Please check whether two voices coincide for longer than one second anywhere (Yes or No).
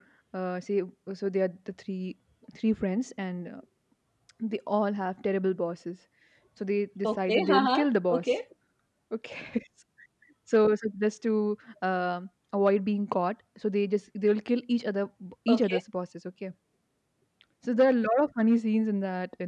Yes